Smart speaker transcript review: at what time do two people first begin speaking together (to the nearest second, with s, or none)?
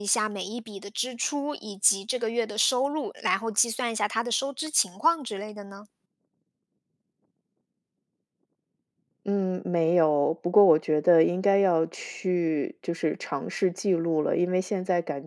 none